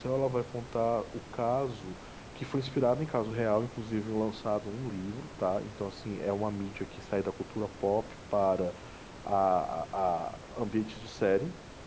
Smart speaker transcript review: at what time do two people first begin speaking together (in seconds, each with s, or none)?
none